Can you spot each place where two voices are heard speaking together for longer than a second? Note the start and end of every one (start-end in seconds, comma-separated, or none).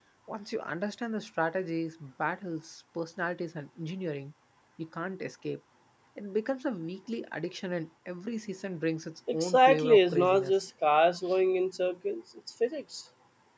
9.3-10.6